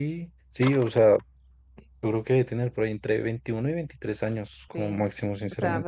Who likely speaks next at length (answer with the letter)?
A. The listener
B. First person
A